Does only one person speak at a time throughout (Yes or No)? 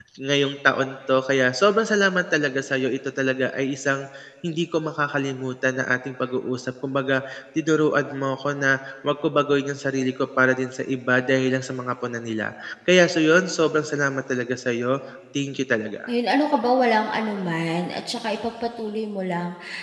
Yes